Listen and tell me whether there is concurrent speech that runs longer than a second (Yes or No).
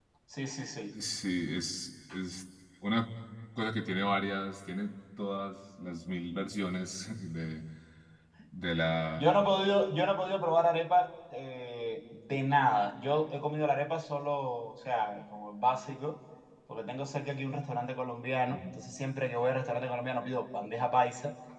No